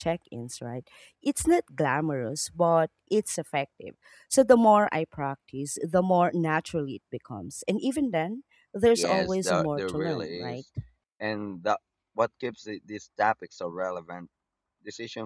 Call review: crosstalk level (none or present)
present